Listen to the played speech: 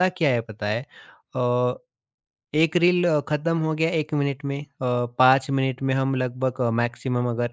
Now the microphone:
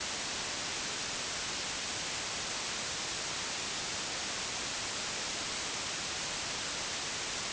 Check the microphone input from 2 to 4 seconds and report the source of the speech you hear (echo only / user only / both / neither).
neither